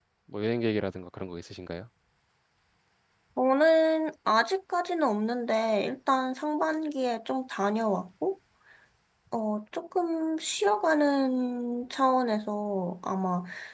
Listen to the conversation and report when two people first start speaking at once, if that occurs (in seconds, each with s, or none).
none